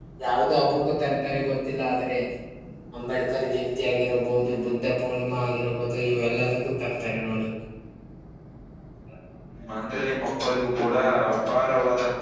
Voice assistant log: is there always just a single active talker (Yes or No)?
Yes